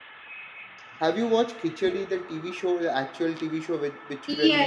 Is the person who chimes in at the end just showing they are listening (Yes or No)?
No